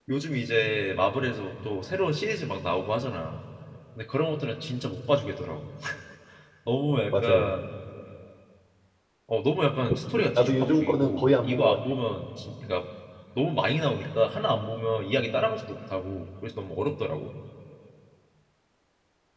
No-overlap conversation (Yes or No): No